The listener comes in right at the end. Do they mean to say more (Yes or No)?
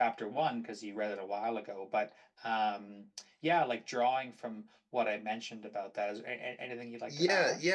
Yes